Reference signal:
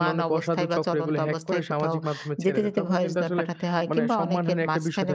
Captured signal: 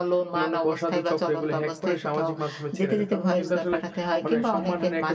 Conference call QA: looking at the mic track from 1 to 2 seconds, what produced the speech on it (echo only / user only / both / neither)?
echo only